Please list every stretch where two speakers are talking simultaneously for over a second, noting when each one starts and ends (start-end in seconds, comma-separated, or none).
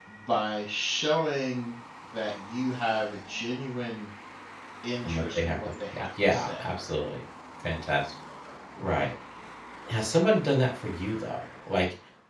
5.0-6.6